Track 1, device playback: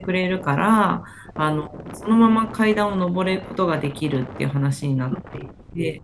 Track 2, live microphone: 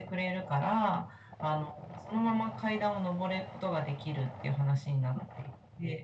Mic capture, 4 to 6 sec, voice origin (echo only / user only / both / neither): echo only